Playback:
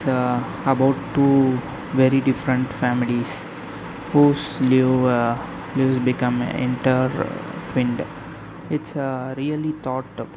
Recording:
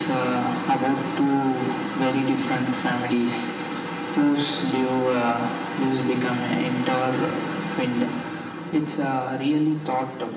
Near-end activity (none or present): none